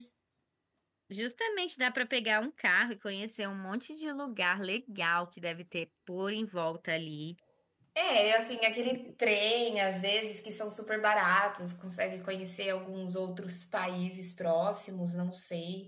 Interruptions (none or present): none